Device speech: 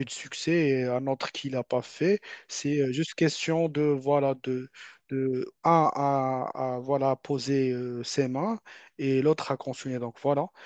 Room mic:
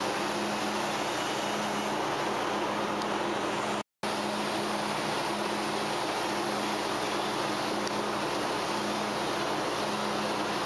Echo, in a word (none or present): none